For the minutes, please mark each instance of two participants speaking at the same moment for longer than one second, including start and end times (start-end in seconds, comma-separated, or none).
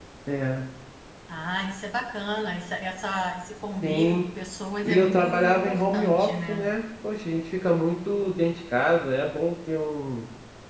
4.8-6.7